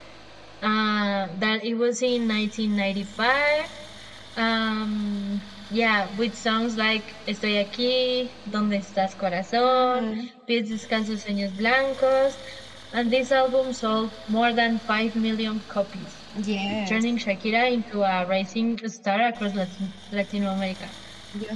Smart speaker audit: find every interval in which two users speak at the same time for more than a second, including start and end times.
none

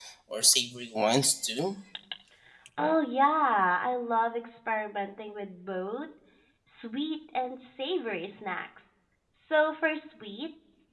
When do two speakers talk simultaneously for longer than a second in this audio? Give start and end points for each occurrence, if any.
none

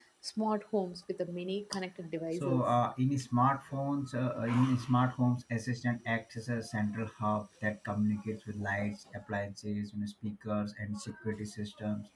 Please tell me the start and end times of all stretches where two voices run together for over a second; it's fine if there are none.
none

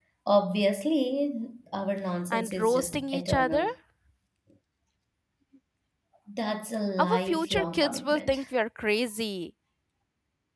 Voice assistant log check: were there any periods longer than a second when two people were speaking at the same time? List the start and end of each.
2.3-3.6, 7.0-8.4

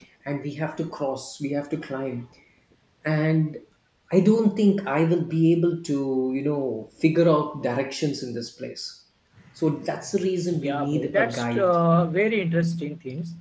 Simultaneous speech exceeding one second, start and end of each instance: 10.5-11.7

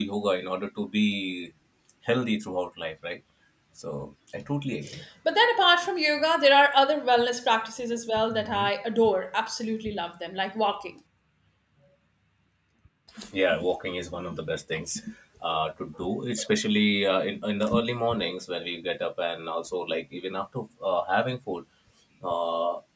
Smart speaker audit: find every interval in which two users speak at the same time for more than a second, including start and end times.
none

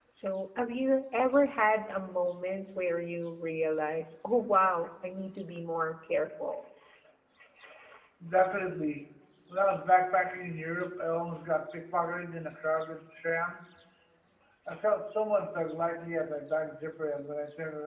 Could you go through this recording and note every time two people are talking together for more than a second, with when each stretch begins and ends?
none

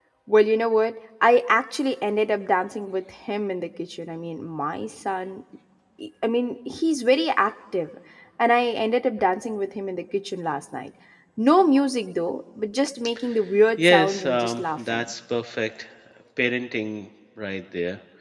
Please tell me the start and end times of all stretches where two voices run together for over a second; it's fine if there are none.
13.8-15.1

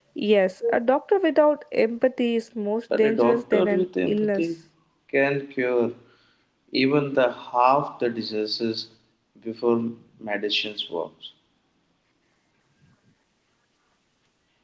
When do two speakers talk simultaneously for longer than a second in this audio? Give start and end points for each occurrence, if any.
2.9-4.4

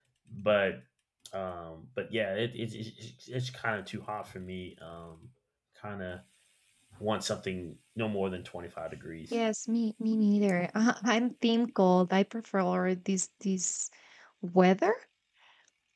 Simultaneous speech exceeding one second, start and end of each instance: none

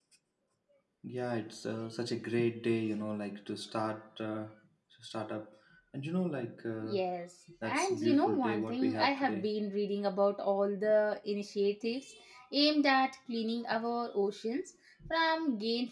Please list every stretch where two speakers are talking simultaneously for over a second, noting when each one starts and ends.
7.6-9.4

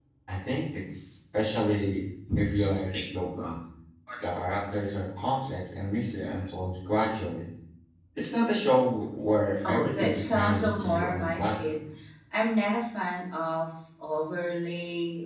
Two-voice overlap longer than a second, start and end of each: 9.6-11.8

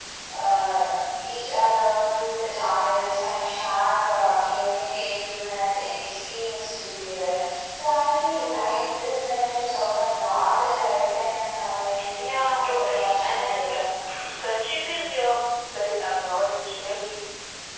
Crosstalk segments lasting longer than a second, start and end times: 12.1-13.8

